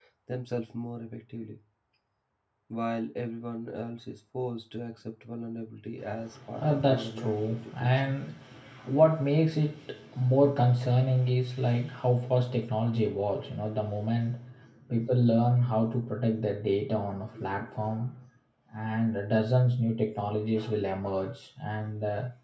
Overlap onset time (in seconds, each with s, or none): 6.5 s